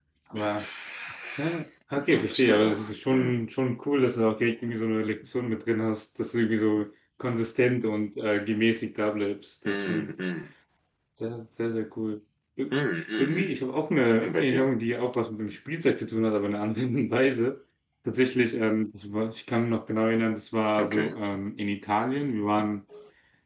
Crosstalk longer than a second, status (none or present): present